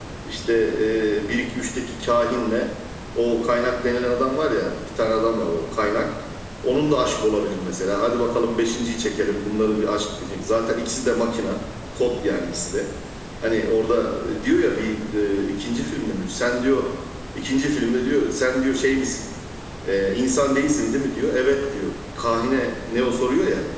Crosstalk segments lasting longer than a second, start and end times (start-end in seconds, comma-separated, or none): none